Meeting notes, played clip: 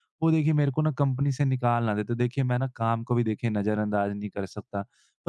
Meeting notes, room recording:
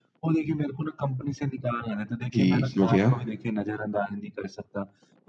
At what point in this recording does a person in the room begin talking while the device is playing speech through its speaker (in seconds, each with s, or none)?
2.3 s